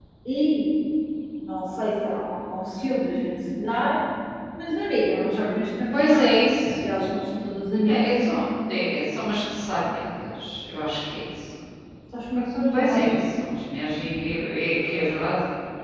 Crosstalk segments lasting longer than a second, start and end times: none

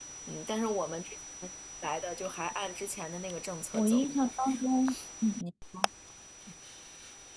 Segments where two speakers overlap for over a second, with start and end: none

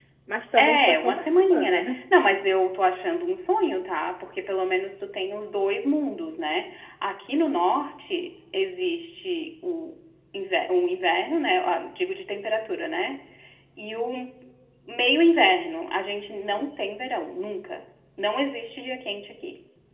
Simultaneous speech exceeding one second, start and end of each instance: 0.6-1.9

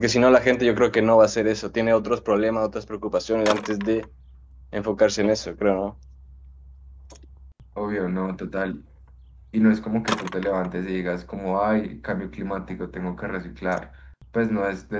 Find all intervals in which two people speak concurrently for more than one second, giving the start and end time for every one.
none

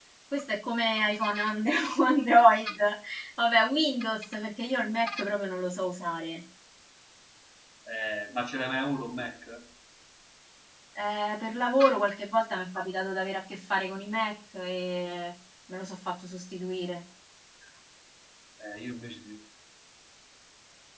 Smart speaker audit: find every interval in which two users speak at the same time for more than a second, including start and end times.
none

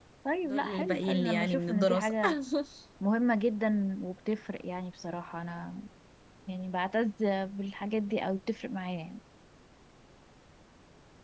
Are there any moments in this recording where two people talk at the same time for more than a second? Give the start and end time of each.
0.5-2.1

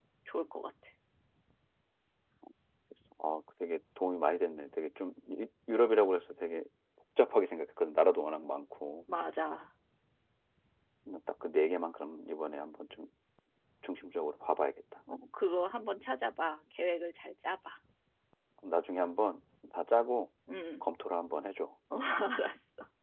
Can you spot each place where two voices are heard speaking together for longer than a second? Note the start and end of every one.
none

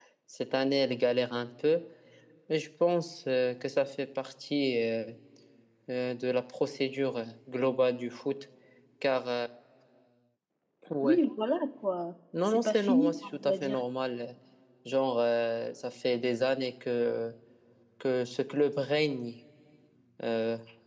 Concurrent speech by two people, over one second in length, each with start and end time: 12.4-13.8

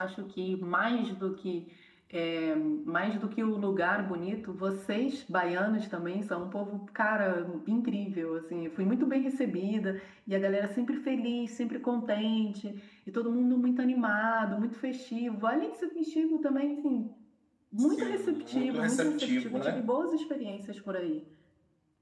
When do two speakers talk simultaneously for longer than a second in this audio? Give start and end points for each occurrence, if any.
18.0-19.8

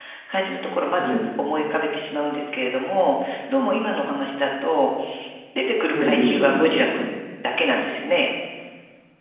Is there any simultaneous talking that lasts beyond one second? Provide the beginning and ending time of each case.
5.8-7.1

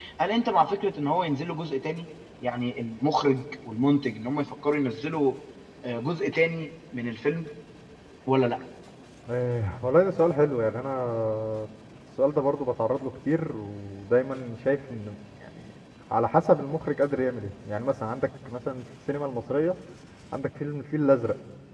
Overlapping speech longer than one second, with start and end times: none

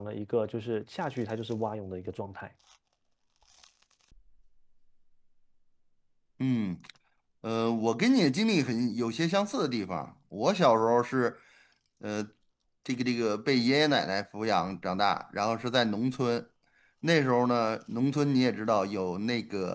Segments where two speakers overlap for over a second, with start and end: none

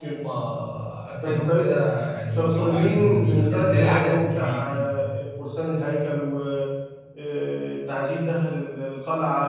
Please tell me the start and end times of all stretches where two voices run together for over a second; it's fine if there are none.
2.3-5.0

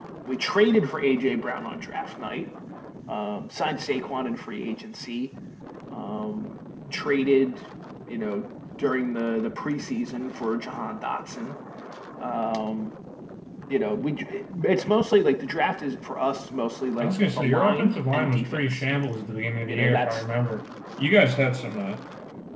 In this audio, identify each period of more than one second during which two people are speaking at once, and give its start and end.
17.0-18.8

